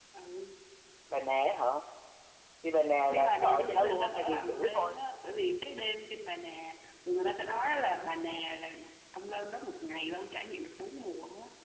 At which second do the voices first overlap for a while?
3.1 s

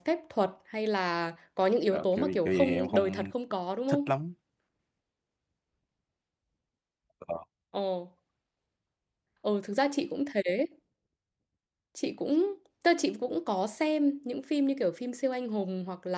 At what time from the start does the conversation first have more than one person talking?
1.9 s

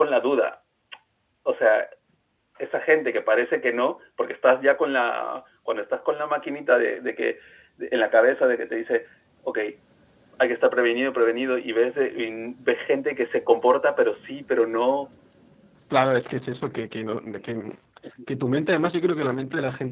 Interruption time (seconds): none

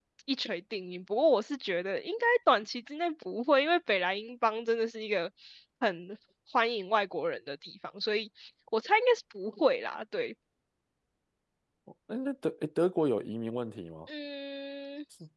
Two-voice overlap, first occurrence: none

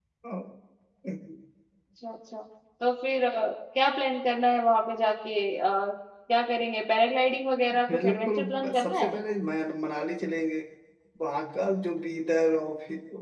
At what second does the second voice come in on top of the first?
7.9 s

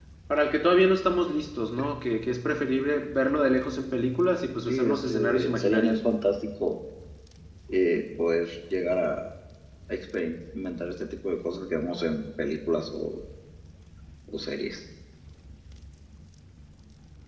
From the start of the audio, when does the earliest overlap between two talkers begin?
4.6 s

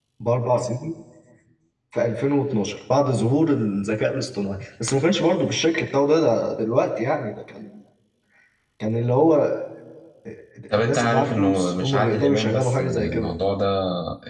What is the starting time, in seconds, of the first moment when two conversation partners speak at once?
10.8 s

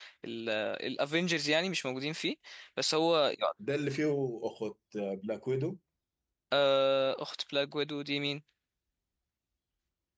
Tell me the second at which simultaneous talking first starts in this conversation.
none

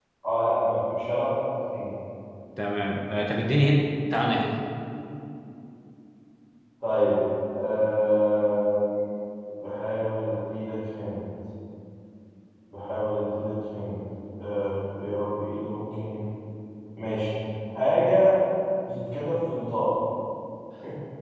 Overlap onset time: none

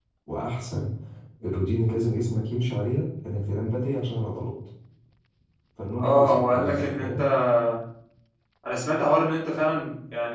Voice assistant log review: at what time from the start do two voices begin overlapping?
6.0 s

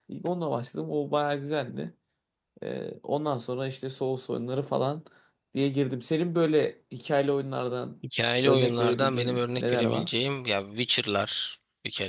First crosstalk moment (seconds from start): 8.4 s

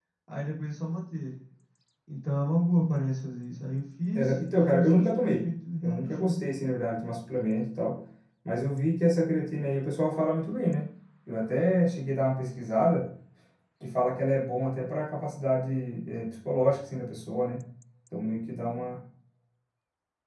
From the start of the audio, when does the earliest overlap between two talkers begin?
4.2 s

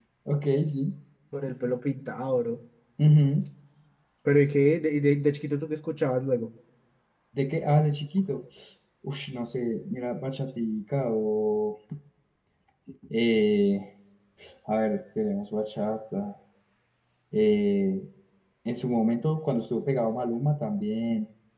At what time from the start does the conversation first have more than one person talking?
none

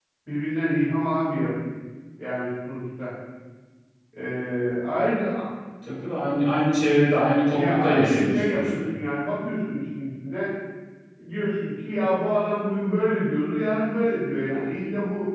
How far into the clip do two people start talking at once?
7.5 s

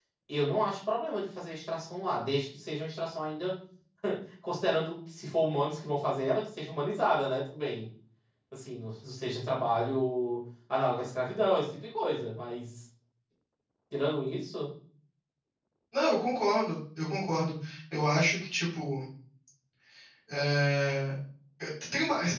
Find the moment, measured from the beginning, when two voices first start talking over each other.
none

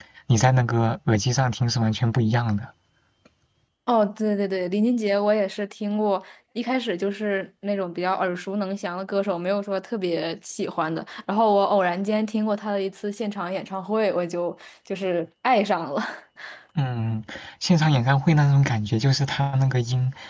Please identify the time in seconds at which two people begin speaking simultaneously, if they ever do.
none

